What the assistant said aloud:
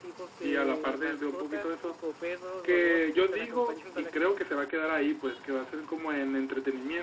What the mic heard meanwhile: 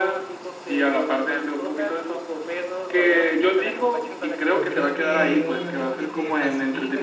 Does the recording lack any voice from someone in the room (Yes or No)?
No